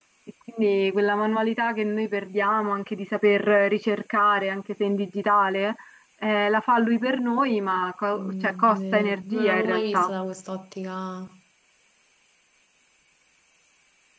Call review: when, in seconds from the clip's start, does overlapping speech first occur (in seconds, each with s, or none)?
8.1 s